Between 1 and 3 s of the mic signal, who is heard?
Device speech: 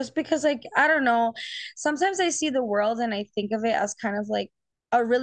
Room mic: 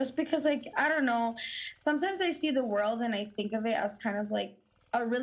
echo only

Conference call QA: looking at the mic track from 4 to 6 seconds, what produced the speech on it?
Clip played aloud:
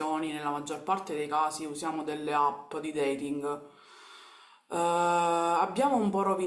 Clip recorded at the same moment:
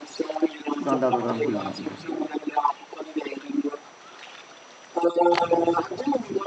echo only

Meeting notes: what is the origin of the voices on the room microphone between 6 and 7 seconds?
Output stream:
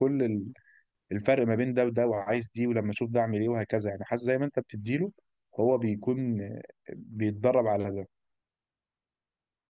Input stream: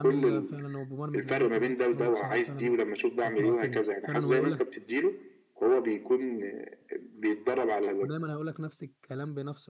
echo only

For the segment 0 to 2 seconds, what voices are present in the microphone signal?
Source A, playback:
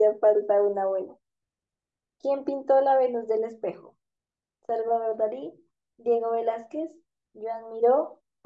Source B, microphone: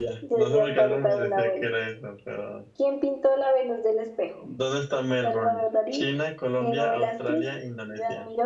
both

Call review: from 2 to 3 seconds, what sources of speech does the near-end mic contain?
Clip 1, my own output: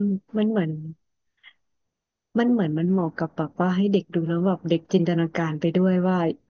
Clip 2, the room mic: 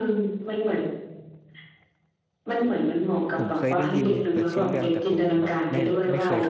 echo only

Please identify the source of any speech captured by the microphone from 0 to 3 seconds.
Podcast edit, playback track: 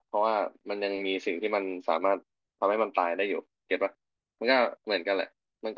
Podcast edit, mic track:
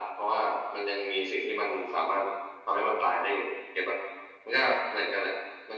echo only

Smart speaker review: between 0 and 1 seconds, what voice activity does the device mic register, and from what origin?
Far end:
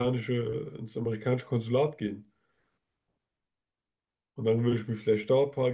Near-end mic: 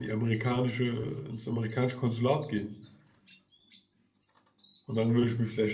echo only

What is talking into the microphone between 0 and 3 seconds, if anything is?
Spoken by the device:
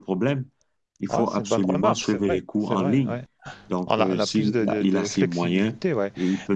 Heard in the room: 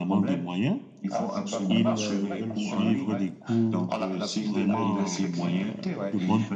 both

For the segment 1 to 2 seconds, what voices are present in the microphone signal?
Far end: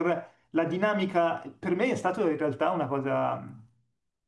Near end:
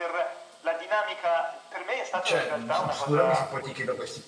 echo only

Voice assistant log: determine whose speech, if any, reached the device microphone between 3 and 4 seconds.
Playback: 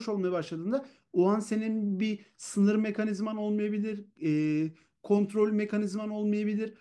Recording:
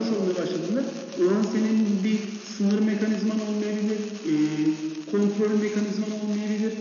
echo only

